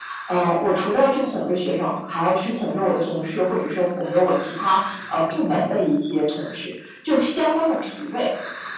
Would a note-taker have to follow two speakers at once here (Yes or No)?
No